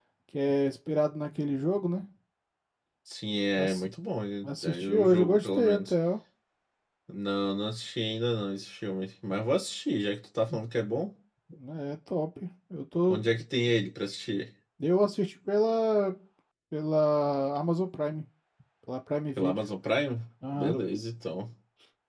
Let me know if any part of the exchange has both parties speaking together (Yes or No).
Yes